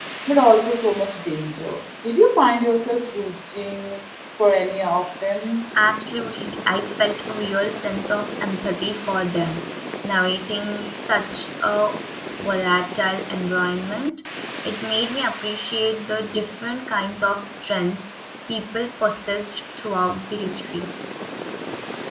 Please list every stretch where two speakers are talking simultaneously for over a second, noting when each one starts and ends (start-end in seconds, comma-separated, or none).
none